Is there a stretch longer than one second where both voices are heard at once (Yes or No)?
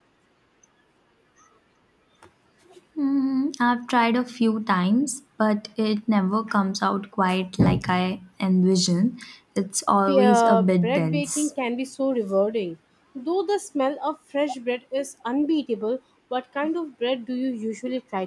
Yes